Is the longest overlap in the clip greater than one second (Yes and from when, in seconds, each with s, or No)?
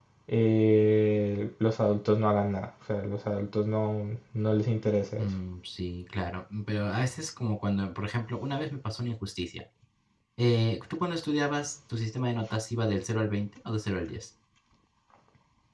No